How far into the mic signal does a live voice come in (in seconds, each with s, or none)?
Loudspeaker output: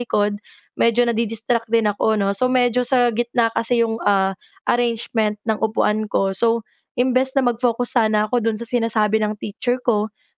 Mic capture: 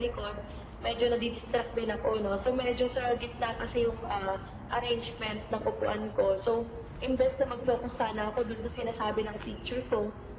none